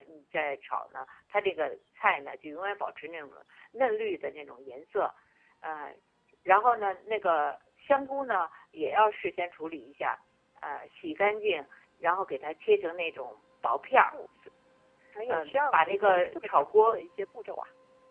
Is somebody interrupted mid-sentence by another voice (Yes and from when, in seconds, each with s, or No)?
Yes, from 15.3 s